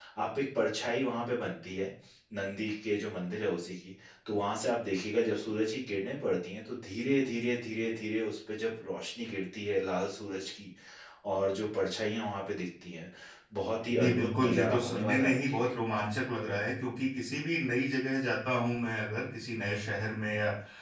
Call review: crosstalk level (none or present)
present